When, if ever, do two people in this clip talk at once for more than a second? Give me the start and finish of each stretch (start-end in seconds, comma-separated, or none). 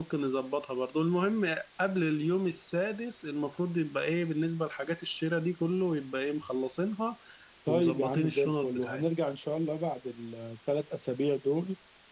7.7-9.0